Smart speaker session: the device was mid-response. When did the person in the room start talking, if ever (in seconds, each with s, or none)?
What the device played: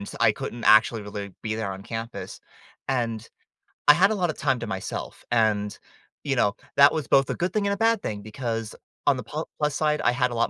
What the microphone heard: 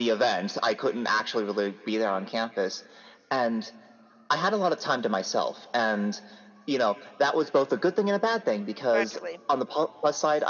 8.9 s